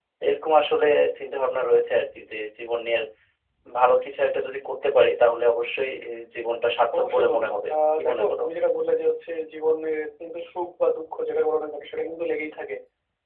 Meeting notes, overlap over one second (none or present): present